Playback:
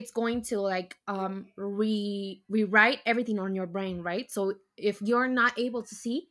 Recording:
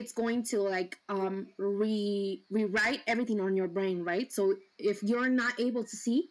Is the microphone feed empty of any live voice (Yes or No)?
Yes